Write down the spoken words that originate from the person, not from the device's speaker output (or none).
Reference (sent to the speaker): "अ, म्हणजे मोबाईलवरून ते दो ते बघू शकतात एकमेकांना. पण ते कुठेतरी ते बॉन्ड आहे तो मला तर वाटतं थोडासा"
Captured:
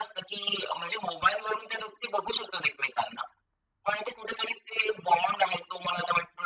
none